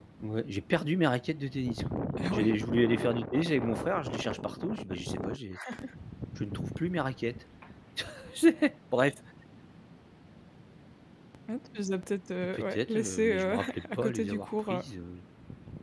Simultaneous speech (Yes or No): Yes